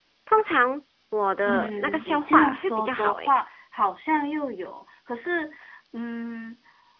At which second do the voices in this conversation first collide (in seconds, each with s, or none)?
1.4 s